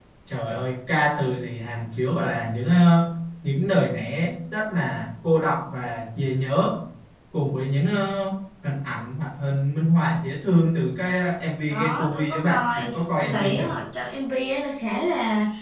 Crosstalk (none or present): present